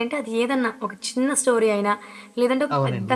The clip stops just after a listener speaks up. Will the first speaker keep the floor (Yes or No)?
Yes